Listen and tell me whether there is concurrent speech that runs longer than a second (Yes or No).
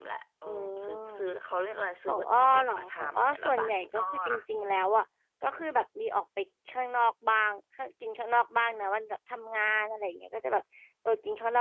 Yes